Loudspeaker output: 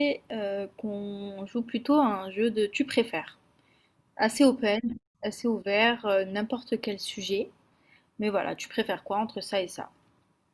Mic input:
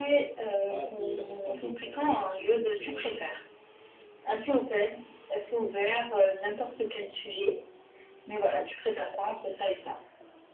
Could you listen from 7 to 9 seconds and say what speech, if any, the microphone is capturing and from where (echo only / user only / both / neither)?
echo only